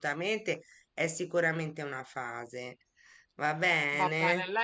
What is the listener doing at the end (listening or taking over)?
taking over